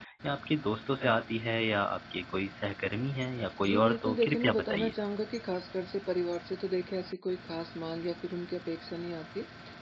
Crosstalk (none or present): present